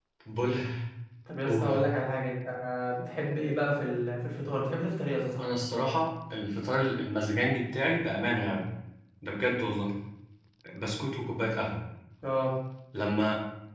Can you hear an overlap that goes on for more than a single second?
No

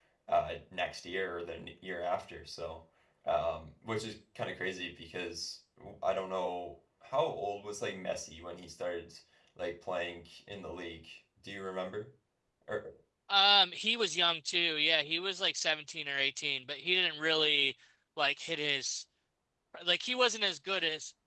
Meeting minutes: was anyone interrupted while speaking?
No

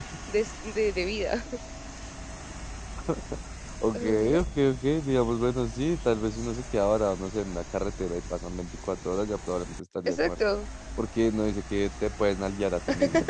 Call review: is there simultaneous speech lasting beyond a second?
No

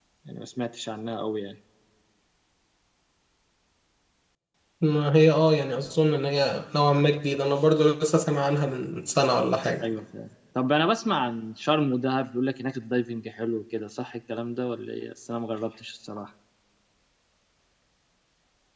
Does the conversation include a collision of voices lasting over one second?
No

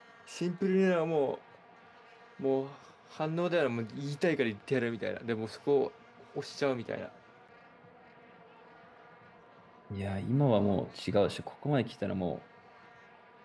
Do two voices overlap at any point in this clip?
No

